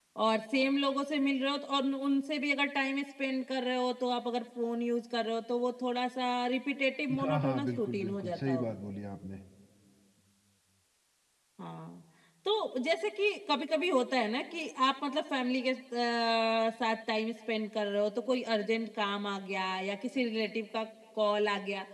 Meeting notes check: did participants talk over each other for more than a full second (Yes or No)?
Yes